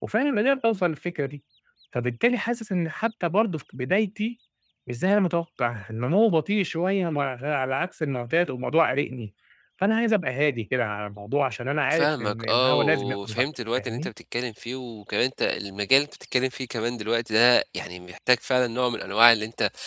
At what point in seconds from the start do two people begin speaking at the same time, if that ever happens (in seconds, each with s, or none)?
11.9 s